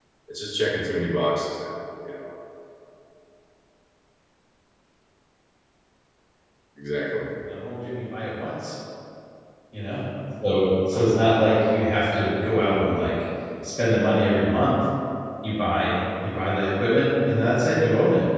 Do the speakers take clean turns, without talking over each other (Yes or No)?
Yes